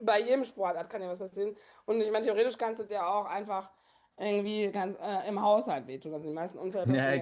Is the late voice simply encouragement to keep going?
No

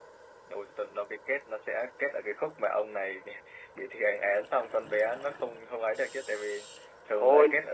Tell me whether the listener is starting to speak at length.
Yes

